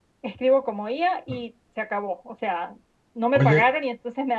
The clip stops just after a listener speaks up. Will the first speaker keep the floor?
Yes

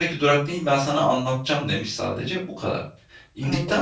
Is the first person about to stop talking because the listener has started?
No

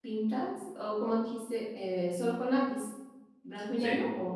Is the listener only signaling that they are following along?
No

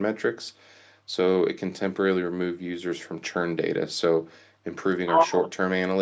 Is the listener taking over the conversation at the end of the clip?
No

